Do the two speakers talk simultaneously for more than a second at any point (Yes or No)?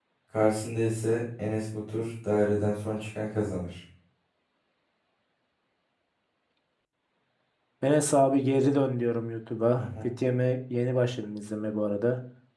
No